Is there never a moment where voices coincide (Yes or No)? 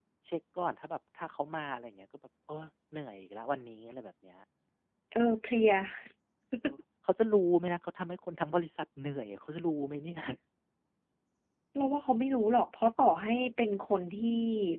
Yes